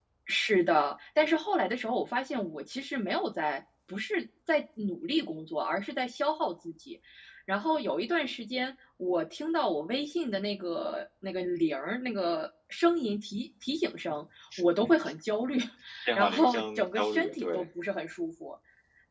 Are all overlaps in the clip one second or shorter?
No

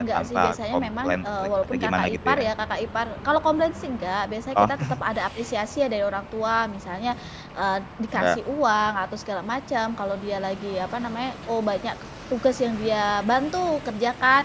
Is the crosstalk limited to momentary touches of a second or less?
No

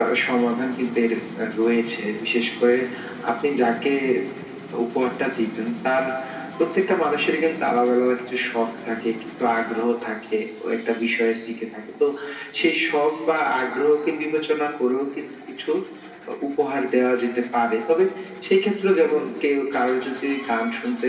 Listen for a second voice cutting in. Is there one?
No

